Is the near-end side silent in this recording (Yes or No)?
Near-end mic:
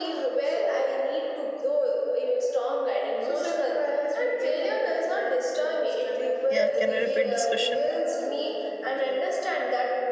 No